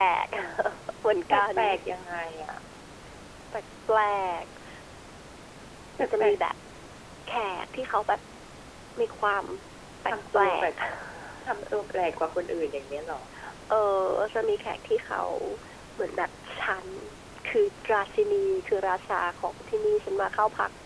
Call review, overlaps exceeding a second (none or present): none